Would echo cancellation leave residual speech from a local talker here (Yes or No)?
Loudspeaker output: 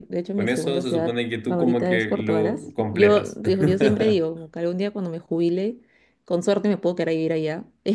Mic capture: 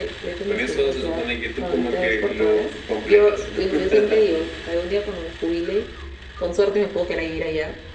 No